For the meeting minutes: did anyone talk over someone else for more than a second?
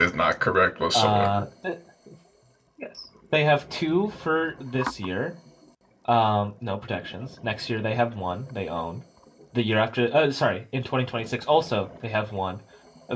No

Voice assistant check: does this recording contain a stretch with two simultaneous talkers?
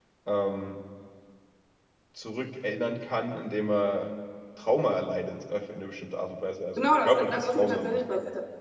Yes, from 6.8 s

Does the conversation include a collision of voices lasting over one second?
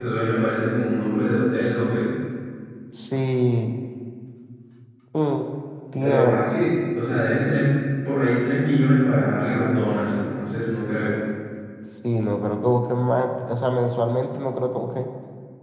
No

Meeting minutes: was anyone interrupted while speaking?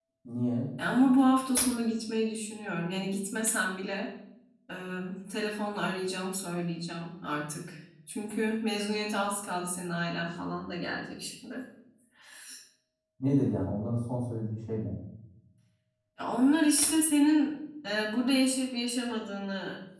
No

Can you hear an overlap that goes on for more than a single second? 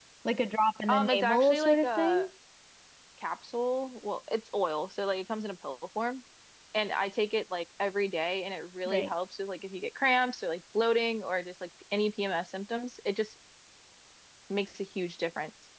Yes, from 0.9 s

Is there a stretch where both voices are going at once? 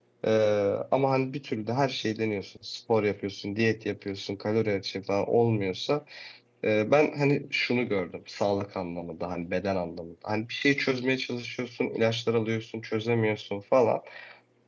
No

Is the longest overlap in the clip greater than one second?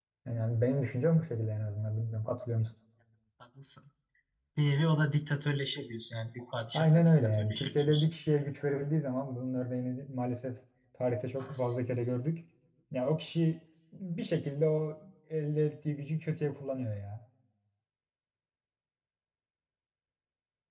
Yes, from 6.7 s

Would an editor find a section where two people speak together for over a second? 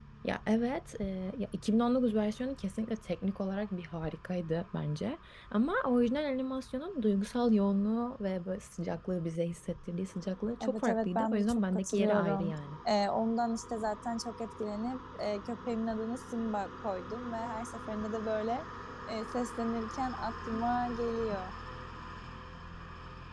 Yes, from 10.6 s

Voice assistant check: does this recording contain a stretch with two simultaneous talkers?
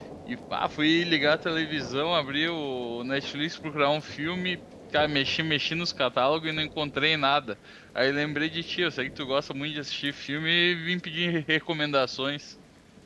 No

